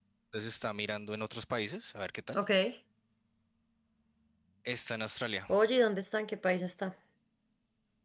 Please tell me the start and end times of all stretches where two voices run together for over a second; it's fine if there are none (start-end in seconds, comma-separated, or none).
none